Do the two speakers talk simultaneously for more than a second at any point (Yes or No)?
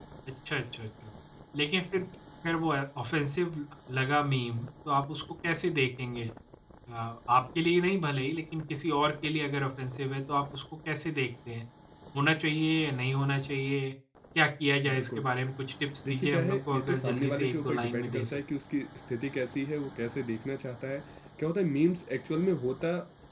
Yes